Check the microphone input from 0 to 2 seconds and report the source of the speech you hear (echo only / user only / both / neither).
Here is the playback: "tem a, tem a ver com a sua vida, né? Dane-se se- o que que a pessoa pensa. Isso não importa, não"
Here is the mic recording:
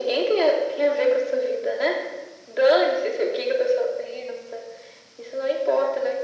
echo only